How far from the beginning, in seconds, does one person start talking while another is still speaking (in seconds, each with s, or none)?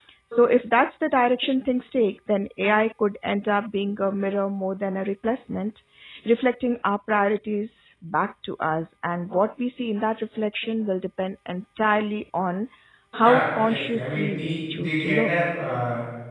13.2 s